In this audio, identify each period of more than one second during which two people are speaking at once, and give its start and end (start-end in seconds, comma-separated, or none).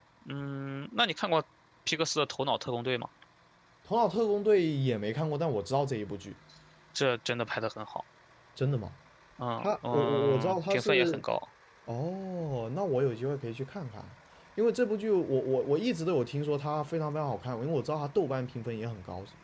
9.6-11.2